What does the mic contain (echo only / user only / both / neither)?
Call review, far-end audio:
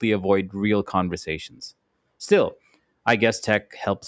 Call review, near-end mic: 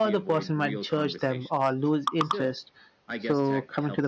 both